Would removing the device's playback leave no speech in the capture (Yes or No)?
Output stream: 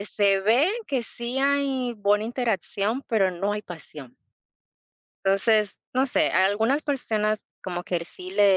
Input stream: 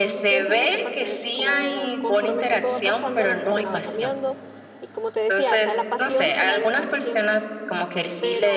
No